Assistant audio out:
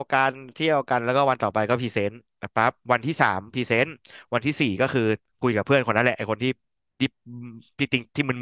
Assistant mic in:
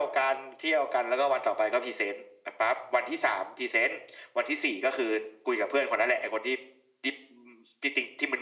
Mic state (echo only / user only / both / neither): echo only